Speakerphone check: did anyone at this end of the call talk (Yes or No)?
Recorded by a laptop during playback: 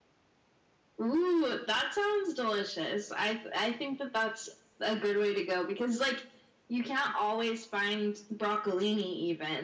No